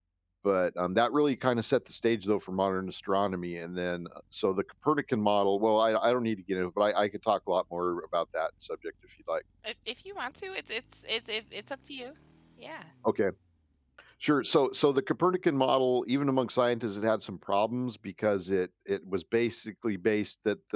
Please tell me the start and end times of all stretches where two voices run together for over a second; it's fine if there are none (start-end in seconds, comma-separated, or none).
none